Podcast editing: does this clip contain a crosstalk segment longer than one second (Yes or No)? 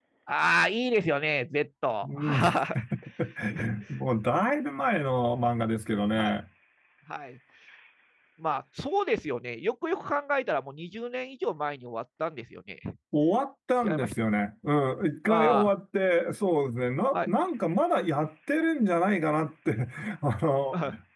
No